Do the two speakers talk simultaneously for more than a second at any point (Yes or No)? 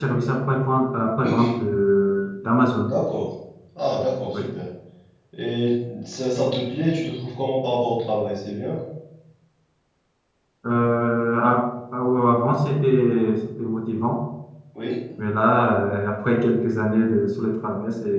No